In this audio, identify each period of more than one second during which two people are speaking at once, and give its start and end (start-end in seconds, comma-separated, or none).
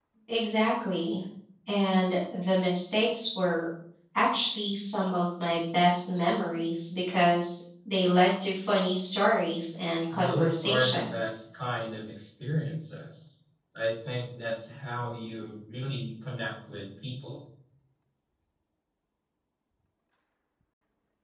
10.1-11.3